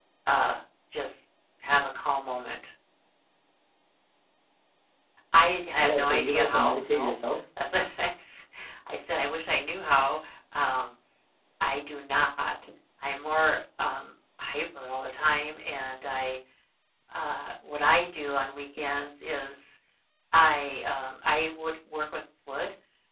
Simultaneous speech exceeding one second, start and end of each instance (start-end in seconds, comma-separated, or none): 5.8-7.1